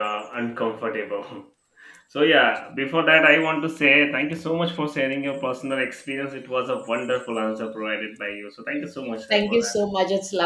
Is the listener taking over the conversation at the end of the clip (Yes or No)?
Yes